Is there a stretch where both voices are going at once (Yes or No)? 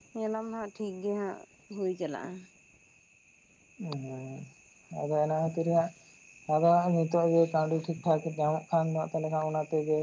No